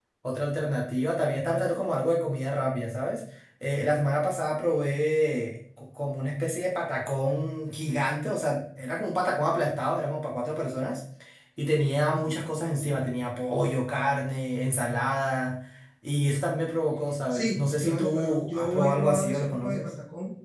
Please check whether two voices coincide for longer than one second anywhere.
Yes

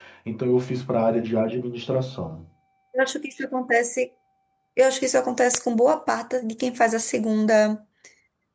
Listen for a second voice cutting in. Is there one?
No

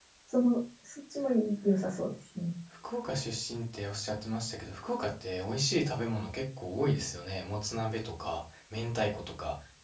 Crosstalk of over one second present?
No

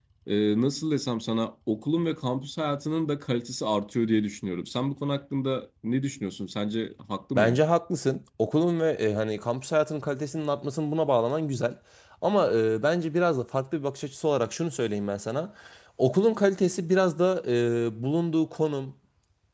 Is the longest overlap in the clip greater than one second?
No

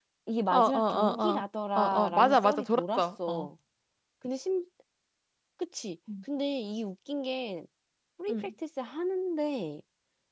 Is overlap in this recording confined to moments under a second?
No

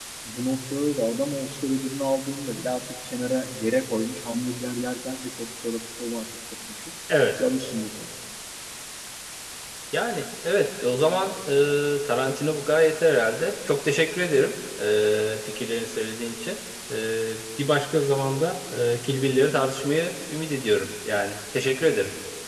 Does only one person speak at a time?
Yes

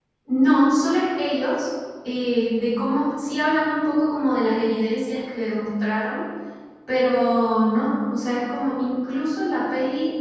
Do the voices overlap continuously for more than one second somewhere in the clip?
No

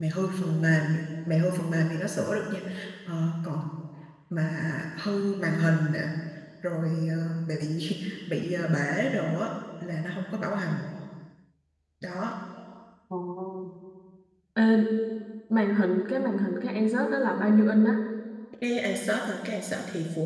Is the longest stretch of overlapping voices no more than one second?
Yes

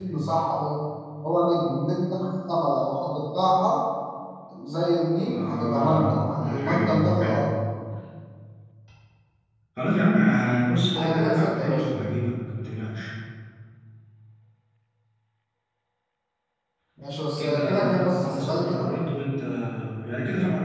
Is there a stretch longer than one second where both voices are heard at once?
Yes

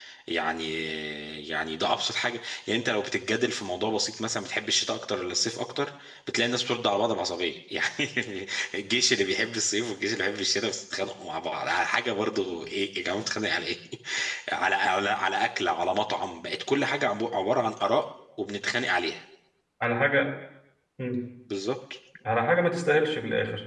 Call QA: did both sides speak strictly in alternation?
Yes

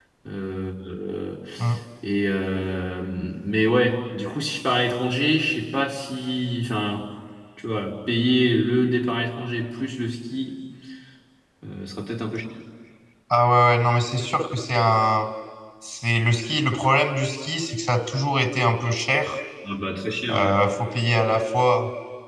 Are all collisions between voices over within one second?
Yes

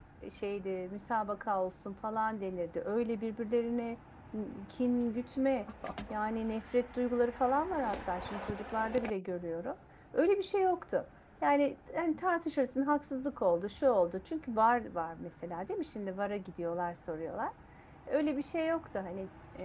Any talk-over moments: No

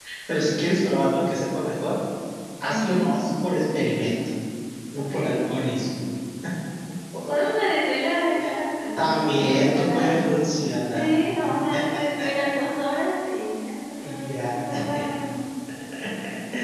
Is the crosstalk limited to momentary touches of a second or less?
No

